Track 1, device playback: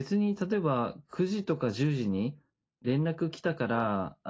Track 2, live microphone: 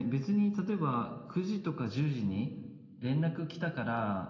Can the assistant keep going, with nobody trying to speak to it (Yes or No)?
Yes